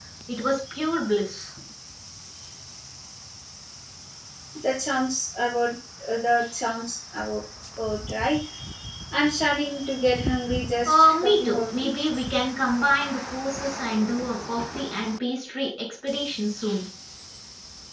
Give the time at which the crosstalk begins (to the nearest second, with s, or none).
11 s